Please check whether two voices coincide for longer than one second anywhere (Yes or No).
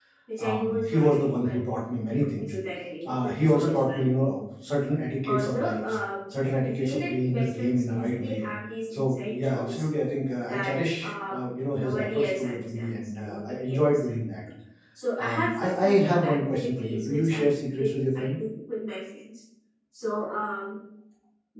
Yes